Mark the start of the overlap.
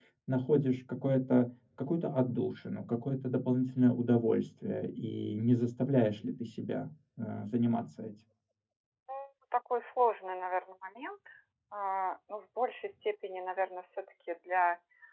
none

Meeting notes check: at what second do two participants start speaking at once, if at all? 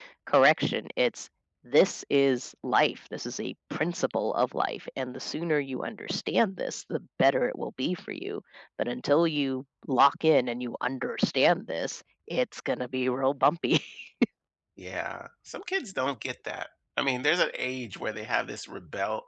none

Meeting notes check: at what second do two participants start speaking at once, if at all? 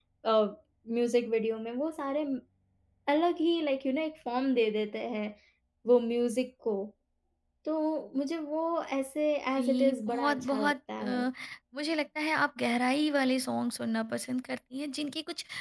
9.6 s

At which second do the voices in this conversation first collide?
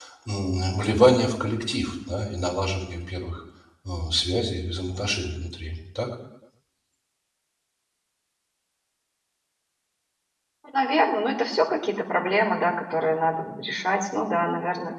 none

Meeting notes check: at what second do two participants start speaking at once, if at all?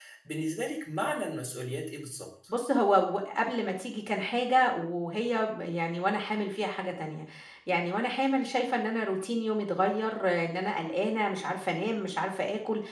none

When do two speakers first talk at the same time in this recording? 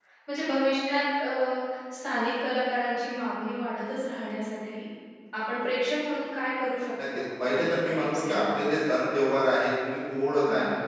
7.0 s

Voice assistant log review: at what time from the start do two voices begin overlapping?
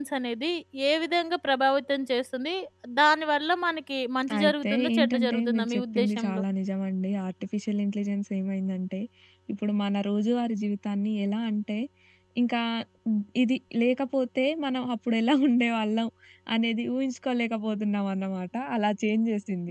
4.3 s

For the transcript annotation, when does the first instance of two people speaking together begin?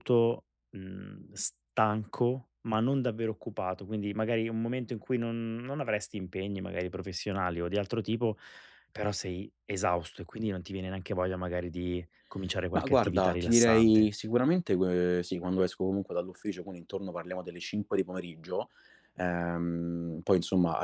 12.8 s

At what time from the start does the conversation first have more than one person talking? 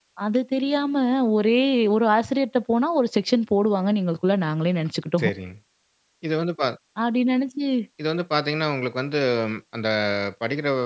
none

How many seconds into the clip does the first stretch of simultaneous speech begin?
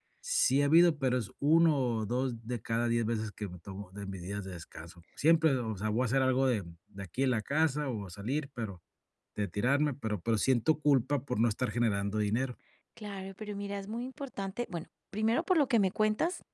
none

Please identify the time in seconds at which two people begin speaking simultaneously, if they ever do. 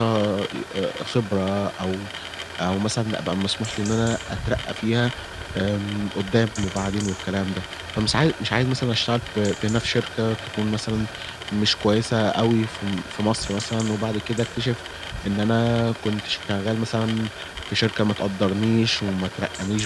none

